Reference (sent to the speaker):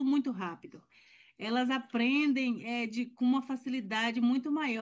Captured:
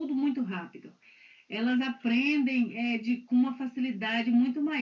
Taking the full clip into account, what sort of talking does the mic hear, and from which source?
echo only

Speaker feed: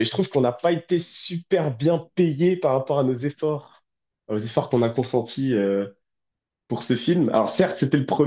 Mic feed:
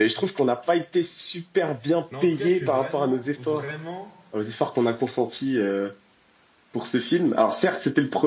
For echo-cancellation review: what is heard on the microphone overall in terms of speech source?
both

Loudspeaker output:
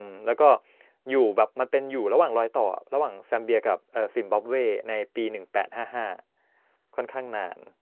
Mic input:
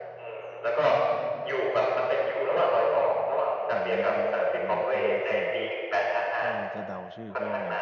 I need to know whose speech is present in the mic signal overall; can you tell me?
both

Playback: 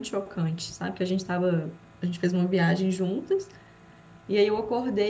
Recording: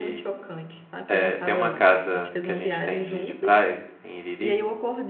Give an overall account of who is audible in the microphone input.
both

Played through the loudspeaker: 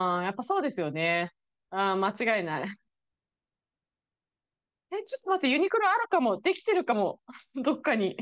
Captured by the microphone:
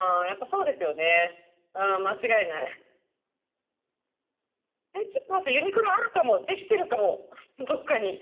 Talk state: echo only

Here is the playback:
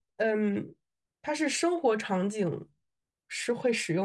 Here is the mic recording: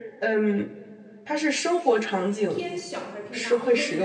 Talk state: both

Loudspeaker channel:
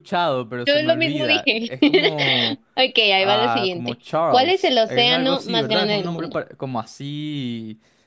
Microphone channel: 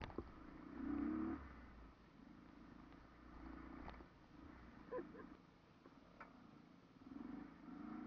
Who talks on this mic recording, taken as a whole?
neither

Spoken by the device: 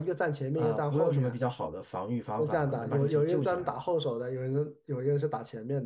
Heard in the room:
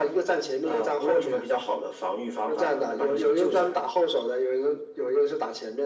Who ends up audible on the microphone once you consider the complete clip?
echo only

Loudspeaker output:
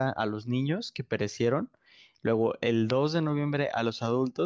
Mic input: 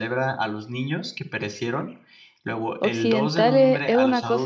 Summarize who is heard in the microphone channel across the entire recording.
both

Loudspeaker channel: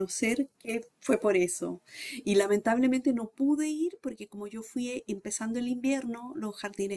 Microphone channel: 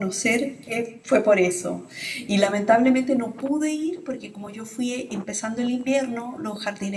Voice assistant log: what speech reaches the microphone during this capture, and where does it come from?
echo only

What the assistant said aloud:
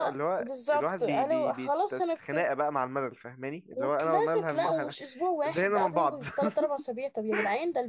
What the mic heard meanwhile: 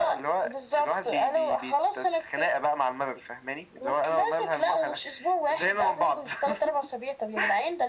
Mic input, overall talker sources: echo only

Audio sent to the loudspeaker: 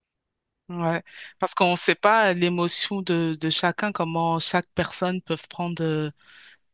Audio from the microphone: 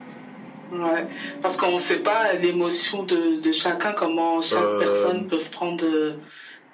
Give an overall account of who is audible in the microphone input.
both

